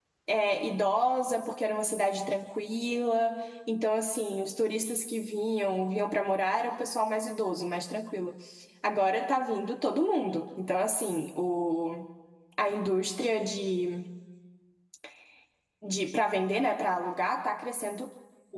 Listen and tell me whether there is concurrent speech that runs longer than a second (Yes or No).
No